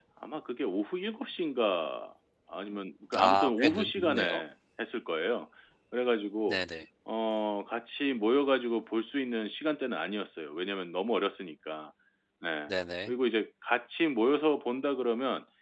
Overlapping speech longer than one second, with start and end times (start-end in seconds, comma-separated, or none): 3.2-4.4